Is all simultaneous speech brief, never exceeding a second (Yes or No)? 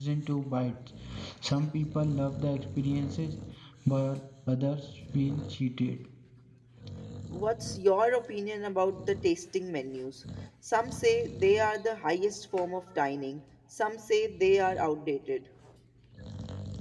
Yes